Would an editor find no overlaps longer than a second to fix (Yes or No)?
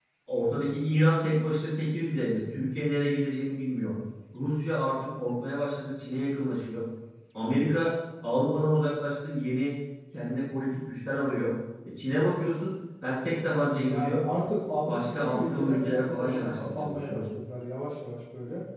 No